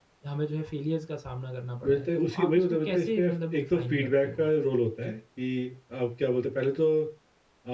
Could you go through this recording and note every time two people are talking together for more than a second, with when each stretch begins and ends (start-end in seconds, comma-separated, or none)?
1.8-4.5